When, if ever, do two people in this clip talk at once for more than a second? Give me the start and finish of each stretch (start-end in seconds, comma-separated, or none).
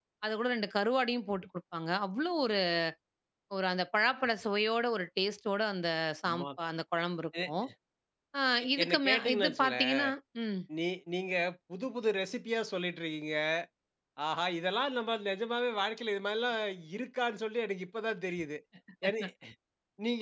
8.8-10.0